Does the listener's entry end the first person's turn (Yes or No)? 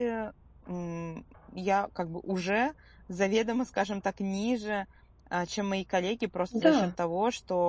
No